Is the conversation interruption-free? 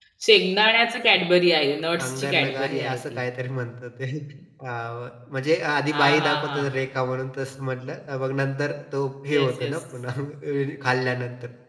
No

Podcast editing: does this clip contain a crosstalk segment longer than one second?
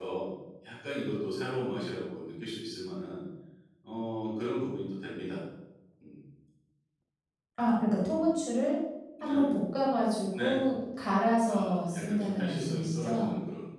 Yes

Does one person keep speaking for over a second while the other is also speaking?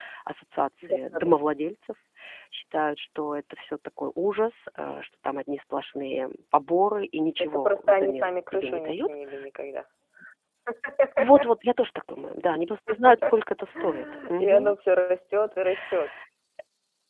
Yes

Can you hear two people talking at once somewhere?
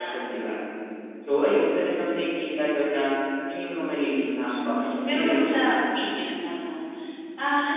Yes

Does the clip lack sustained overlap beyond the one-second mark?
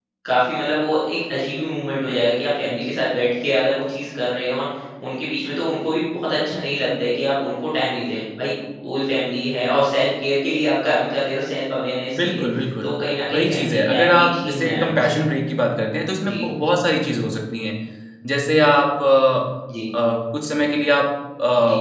No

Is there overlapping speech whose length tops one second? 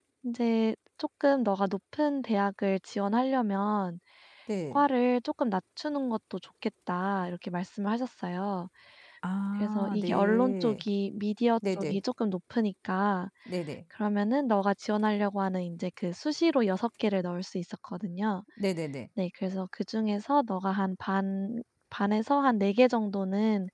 Yes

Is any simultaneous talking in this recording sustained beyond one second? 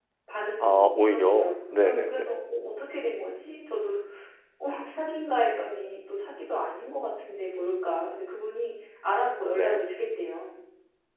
Yes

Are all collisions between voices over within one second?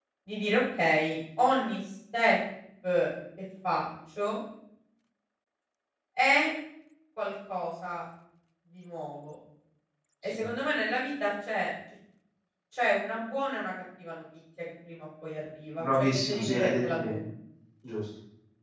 No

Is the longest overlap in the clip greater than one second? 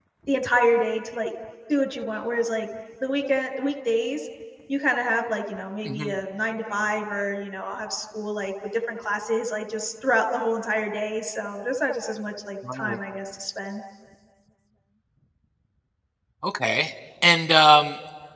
No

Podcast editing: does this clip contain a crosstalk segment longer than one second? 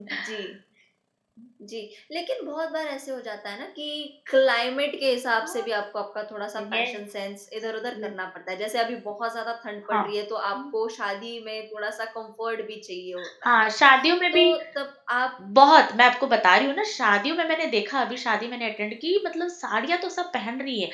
No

